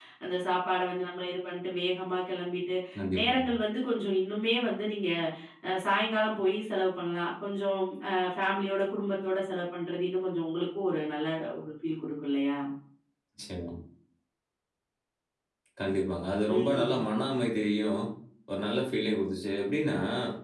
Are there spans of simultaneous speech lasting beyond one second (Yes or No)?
No